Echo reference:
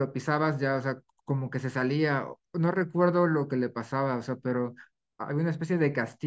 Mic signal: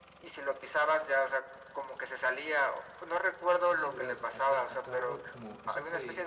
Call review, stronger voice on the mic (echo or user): echo